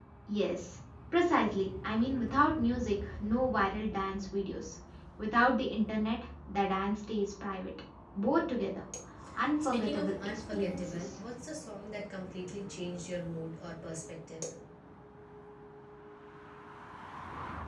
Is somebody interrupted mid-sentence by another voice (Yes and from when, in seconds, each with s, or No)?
Yes, from 9.6 s